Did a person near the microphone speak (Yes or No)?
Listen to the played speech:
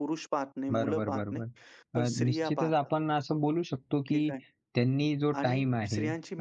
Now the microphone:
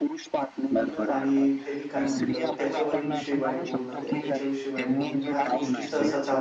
Yes